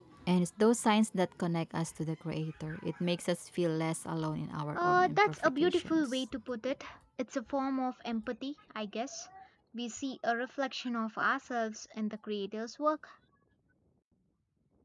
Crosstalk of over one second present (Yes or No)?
Yes